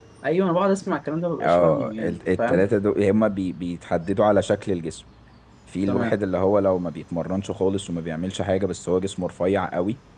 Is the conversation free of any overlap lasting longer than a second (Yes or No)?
No